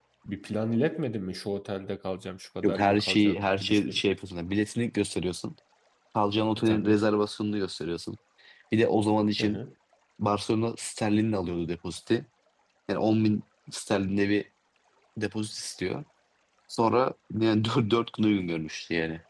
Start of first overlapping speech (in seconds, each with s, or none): 2.6 s